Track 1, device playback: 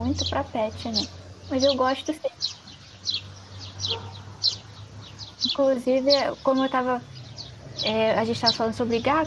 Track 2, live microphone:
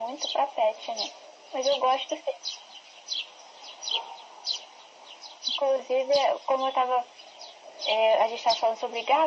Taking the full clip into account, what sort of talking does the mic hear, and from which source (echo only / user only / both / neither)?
echo only